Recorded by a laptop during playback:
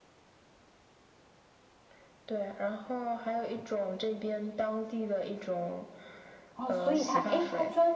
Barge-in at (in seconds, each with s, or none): 6.5 s